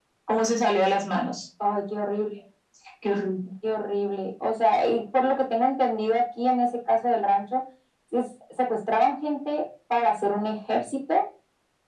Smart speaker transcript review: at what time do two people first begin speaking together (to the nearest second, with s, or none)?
none